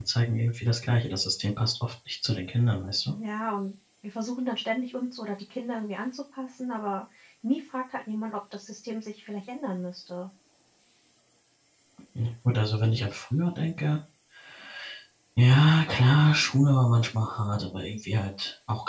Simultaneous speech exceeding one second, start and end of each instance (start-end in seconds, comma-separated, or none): none